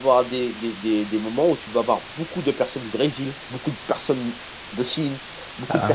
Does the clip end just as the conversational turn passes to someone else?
No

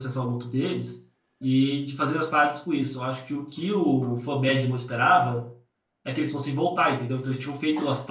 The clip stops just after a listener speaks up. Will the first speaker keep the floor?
Yes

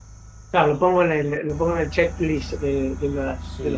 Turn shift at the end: Yes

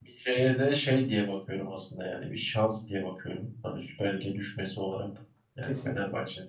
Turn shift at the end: No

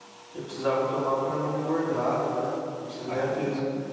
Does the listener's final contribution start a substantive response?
Yes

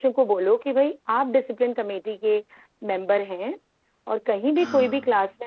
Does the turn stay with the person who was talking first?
Yes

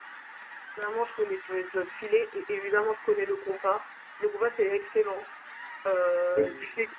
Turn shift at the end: No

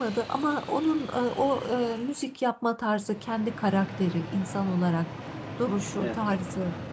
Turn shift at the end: No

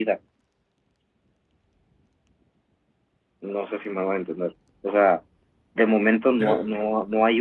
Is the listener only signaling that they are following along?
Yes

